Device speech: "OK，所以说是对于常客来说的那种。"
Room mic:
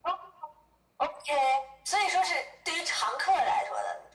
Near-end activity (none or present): none